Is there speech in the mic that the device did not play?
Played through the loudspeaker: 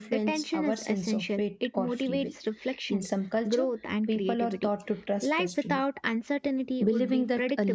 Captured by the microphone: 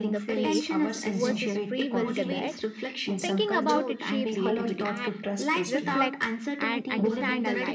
Yes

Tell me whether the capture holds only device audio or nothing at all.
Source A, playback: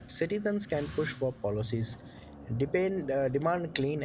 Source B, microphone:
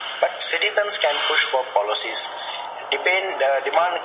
Yes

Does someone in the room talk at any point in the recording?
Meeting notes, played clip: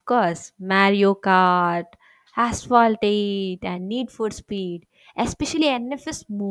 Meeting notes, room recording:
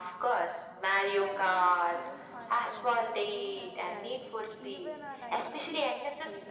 Yes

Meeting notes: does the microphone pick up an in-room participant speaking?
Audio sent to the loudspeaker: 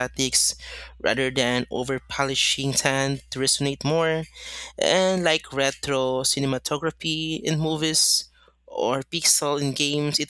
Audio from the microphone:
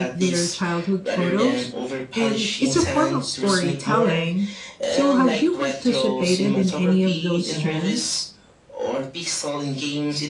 Yes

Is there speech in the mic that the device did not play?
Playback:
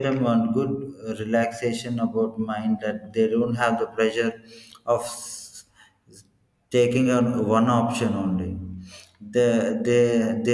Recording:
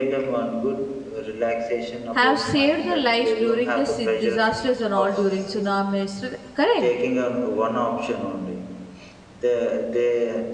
Yes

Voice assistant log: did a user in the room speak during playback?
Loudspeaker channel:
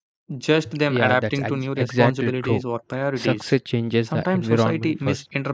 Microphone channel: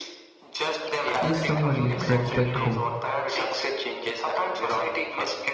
Yes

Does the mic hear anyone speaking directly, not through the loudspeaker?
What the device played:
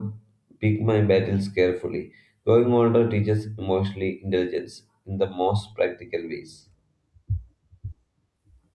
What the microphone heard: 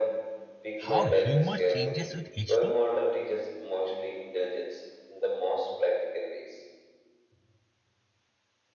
Yes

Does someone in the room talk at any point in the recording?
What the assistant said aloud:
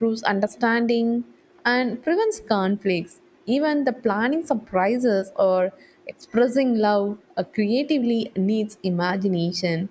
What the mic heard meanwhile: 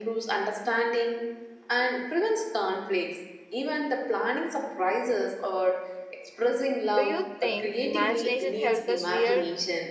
Yes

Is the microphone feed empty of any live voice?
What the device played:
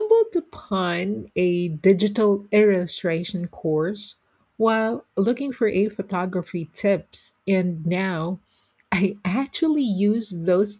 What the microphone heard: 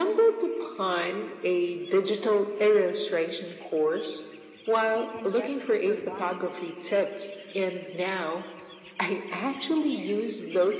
No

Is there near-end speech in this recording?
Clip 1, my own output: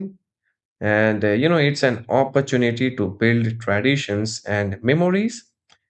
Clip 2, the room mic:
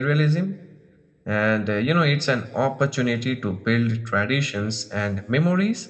No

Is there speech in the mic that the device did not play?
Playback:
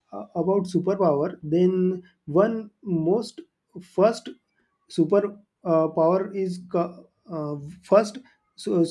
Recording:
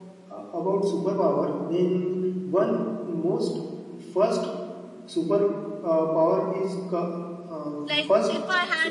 Yes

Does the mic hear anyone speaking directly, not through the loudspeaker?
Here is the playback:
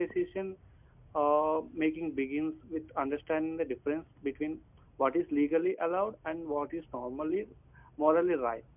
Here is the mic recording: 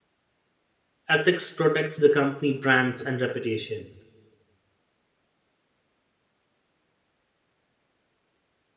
Yes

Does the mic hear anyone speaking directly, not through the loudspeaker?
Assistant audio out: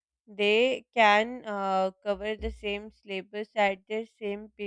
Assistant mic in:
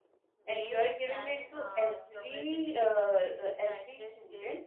Yes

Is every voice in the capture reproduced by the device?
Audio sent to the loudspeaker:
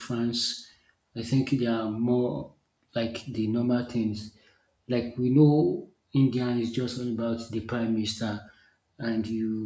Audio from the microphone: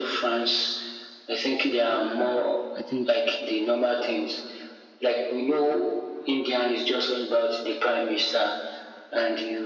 No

